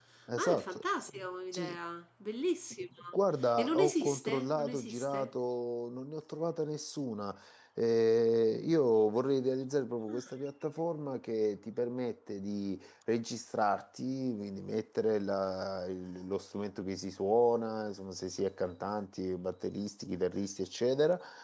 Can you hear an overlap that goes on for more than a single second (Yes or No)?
Yes